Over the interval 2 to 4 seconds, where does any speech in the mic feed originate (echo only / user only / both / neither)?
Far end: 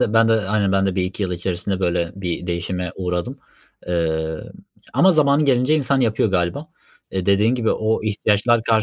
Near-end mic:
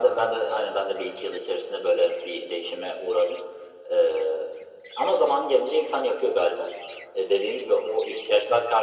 echo only